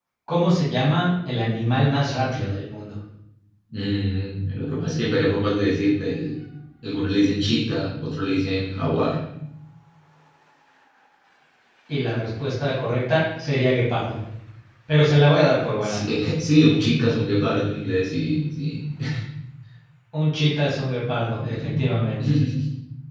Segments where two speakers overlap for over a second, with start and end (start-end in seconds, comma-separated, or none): none